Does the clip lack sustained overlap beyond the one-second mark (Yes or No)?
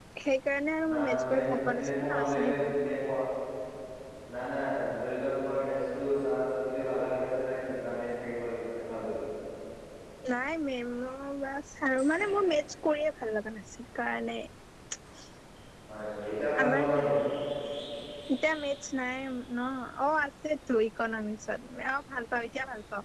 No